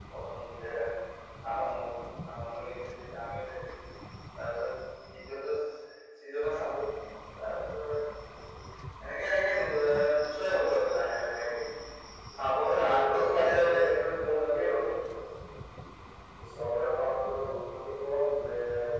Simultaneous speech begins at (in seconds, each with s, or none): 12.8 s